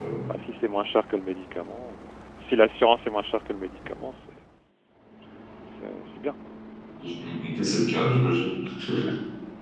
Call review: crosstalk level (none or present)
none